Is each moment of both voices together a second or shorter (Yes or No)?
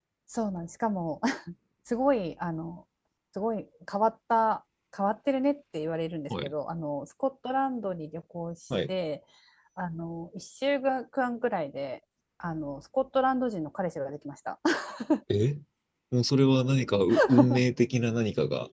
Yes